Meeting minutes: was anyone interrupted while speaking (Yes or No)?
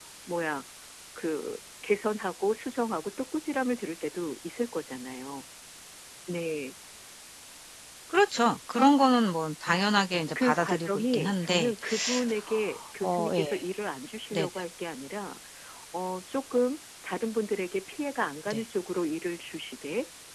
Yes